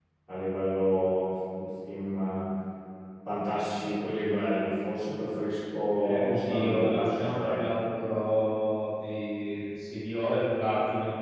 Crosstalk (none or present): present